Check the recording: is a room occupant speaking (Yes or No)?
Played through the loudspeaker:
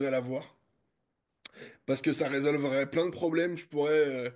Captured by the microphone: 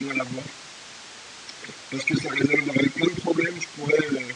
No